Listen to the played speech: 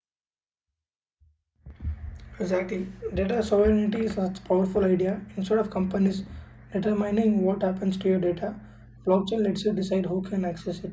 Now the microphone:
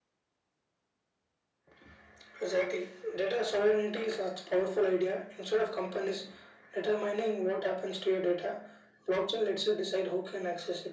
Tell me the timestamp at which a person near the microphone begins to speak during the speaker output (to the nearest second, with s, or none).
none